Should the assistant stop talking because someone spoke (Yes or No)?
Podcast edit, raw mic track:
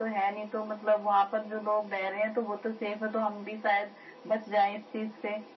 No